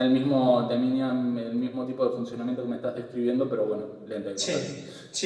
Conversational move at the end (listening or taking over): taking over